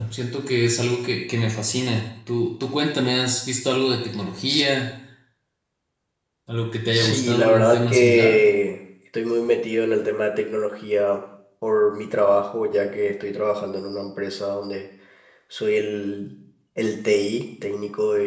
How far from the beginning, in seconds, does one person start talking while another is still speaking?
6.9 s

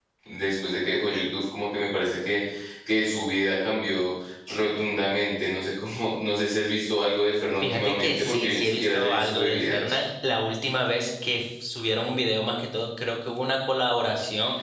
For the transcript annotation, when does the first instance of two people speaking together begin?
7.6 s

